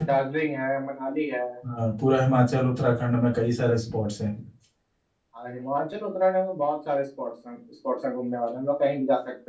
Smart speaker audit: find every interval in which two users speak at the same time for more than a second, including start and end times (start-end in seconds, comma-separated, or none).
none